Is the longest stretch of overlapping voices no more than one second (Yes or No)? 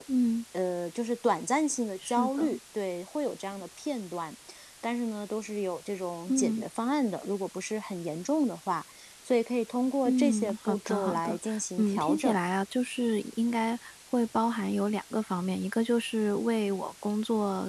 No